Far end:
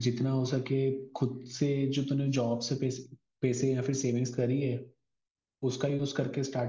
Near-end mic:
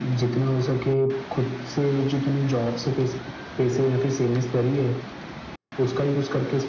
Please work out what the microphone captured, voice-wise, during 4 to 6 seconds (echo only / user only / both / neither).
echo only